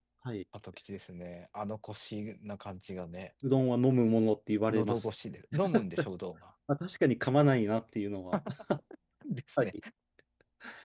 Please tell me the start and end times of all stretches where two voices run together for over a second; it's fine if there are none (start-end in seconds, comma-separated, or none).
none